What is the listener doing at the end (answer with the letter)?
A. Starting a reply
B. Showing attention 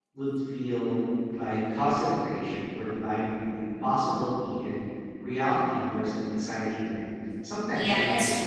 A